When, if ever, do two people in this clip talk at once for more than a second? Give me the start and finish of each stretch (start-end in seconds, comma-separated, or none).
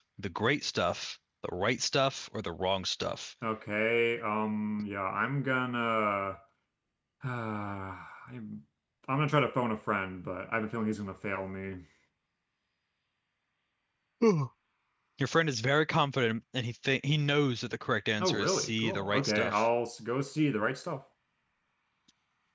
18.2-19.7